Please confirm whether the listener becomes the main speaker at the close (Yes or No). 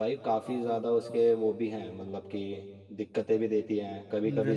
No